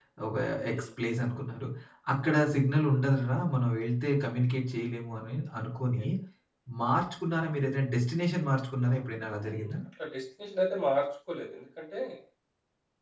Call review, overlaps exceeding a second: none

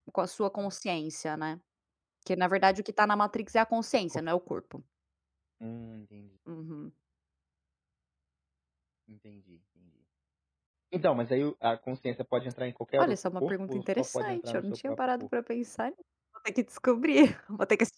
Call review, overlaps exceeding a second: present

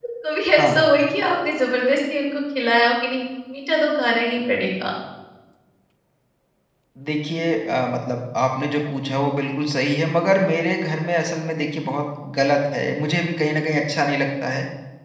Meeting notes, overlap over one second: none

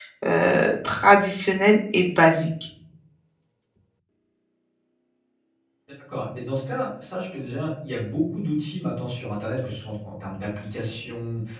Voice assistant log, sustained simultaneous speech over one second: none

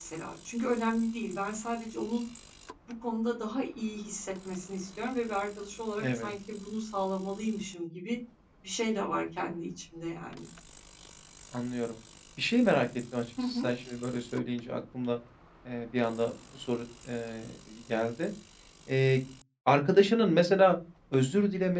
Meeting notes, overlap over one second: none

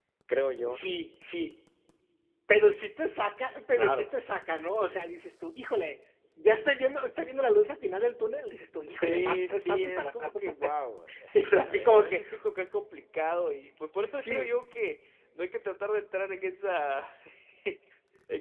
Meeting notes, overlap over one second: present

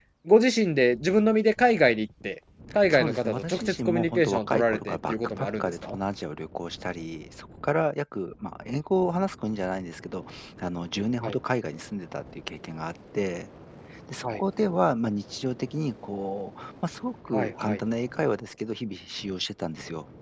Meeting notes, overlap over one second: present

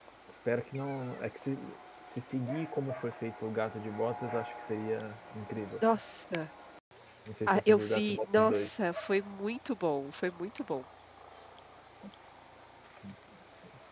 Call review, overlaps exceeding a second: present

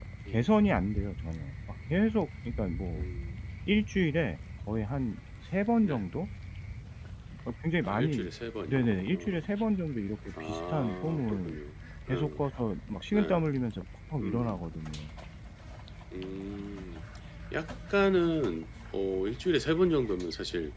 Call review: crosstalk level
present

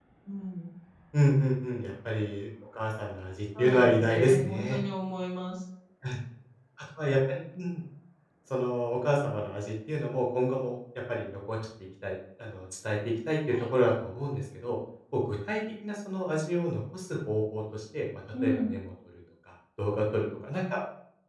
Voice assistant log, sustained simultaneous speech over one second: present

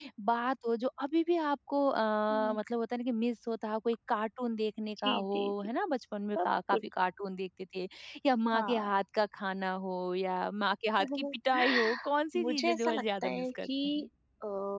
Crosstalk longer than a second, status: present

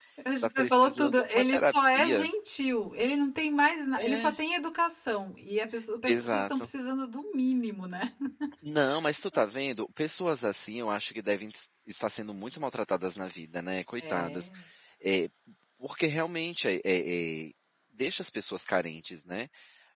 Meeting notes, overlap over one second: present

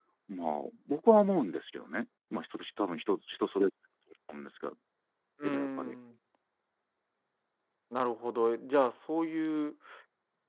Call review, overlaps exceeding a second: none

